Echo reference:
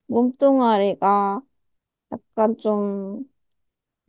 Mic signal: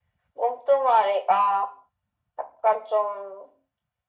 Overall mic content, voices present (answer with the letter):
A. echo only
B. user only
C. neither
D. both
A